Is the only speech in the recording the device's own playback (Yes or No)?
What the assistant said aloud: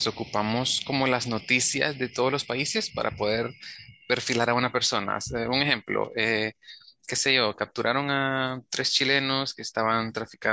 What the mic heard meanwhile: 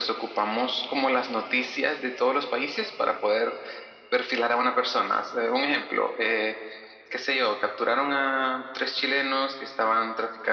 Yes